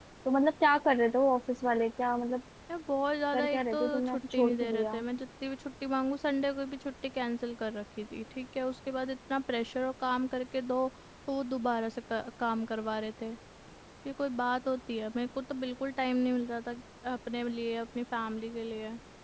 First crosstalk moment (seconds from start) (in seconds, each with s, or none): 3.3 s